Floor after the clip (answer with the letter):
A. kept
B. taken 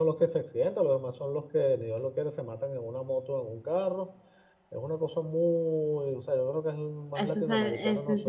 B